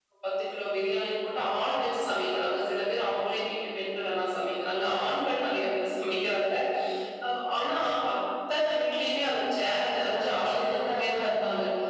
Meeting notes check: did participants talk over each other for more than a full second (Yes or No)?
Yes